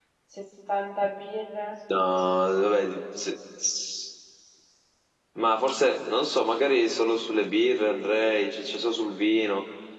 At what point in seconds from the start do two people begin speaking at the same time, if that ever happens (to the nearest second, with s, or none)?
none